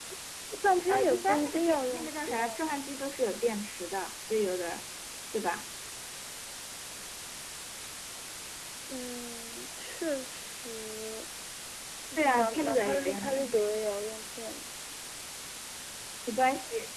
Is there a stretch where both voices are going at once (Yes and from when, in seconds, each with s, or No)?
Yes, from 0.9 s